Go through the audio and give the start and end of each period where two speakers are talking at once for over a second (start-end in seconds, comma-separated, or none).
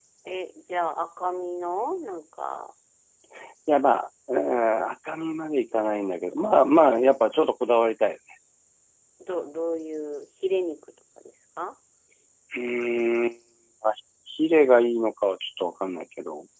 none